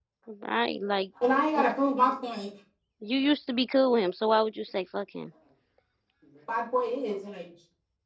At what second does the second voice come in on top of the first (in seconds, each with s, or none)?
none